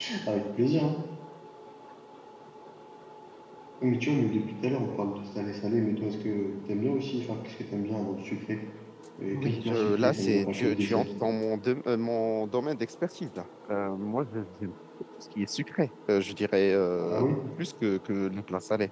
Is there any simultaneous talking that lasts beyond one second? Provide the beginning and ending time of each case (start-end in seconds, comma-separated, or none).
9.3-11.3